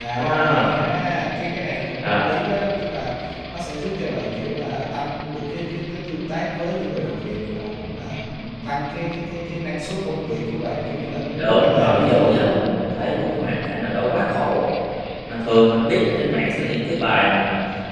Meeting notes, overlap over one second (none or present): present